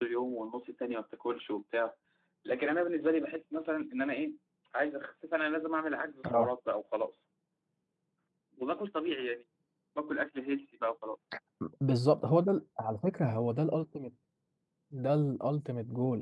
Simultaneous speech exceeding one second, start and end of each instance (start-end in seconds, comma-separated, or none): none